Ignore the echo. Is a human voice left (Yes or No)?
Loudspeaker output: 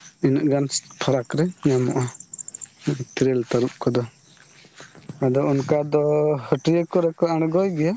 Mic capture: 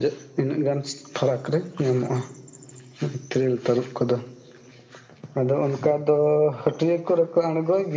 No